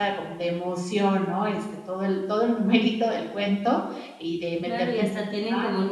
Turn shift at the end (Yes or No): Yes